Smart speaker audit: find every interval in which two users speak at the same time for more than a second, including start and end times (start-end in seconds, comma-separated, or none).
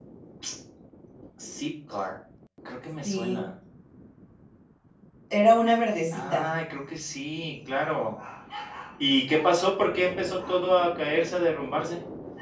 none